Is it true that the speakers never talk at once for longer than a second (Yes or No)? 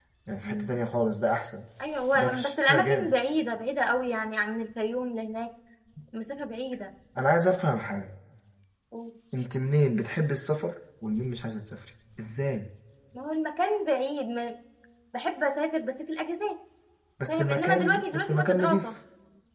No